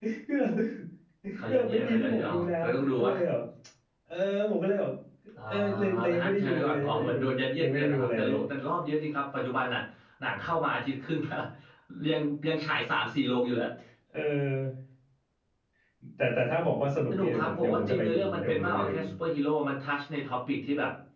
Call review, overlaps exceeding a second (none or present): present